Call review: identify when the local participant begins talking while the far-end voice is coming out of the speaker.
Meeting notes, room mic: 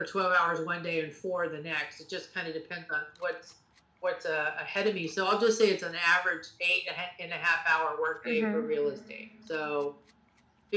8.2 s

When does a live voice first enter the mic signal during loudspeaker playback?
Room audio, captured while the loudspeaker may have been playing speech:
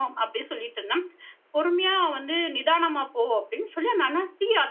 none

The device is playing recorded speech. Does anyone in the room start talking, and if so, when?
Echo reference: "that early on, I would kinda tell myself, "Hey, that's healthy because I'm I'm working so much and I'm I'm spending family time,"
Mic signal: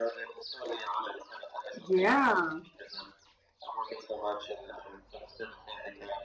1.7 s

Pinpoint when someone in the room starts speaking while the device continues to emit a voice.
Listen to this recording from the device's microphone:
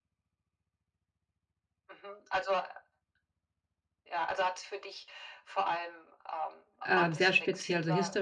6.8 s

